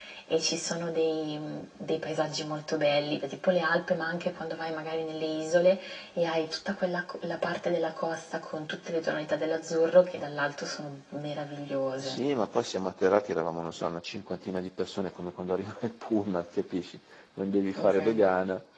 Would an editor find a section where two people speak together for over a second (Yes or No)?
No